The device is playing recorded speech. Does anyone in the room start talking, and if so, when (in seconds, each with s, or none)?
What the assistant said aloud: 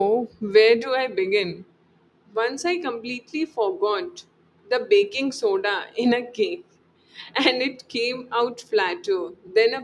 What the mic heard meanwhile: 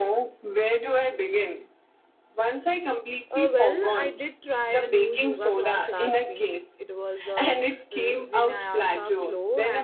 3.3 s